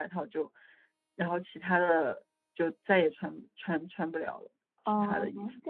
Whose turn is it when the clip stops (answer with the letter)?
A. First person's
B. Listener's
B